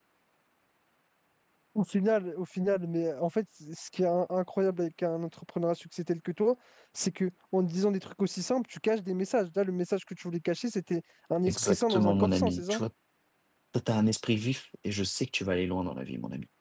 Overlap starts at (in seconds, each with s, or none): 11.4 s